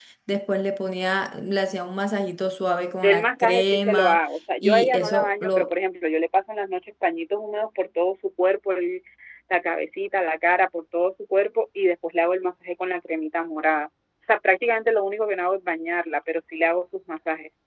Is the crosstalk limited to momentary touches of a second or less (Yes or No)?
No